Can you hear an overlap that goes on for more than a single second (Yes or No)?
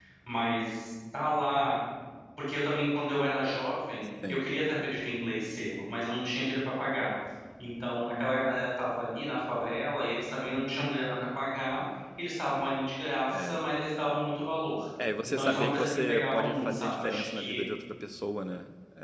Yes